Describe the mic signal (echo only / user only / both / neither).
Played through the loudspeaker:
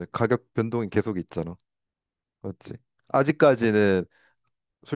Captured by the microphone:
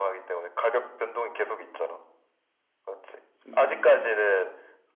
both